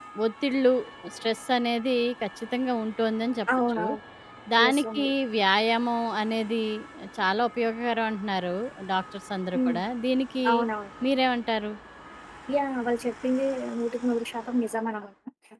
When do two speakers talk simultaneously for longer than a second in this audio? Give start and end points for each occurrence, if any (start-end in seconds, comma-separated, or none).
none